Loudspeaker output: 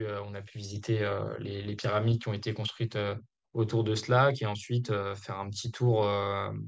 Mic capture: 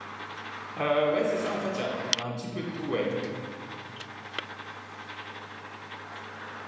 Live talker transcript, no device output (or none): Euh, ouais, c'est ça, en fait, il y a, il y a un petit peu de tout, ouais.